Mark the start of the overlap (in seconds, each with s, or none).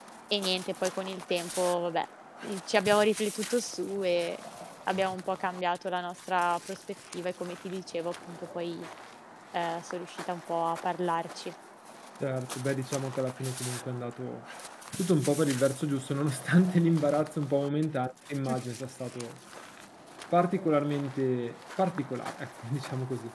none